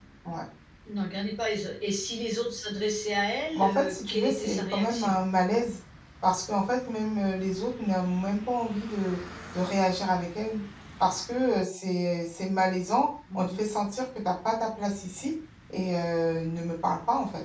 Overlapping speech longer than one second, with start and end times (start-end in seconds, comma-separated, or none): 3.5-5.2